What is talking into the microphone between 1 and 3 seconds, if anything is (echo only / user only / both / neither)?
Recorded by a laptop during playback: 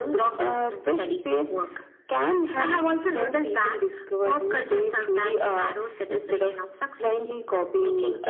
echo only